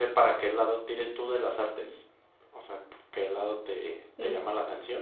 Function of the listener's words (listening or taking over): listening